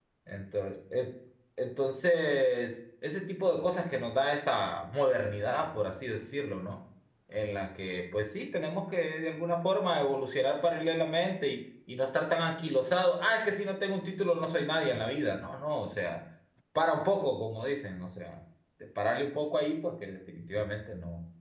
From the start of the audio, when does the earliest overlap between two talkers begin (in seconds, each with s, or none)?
none